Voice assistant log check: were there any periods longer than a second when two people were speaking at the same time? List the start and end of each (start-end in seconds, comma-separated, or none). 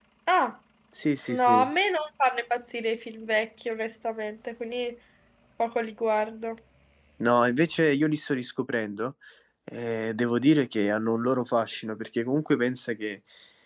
none